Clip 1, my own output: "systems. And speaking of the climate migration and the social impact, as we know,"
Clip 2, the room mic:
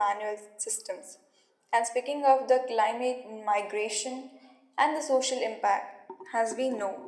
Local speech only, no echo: none

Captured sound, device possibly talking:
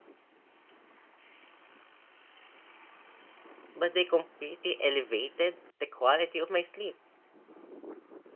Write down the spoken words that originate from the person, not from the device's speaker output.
but they completely elevated the quality of my sleep.

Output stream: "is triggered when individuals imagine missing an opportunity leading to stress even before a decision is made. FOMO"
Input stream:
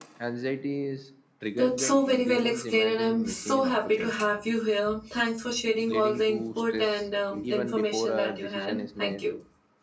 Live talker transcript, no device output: That's so very well explained, and I'm so happy to have you here. Thanks for sharing all the input and um, information that you had. Thank you.

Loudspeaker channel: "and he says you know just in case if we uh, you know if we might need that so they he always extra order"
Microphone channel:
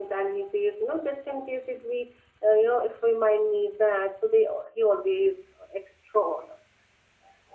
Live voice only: none

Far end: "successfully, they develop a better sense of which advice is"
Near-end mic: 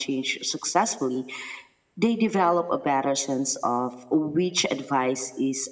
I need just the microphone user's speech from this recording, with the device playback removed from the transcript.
none

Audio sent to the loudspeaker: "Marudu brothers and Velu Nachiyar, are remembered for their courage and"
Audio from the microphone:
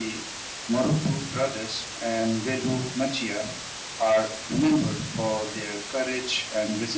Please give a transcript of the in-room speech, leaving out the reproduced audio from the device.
none

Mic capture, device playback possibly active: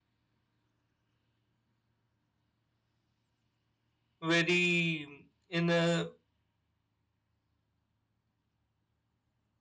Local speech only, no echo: very in a

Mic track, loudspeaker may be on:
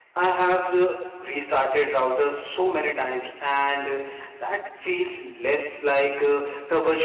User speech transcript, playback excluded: none

